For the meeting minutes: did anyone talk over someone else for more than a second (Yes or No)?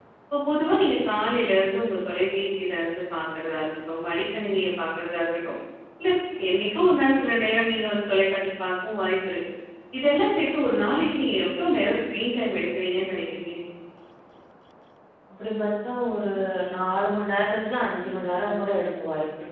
No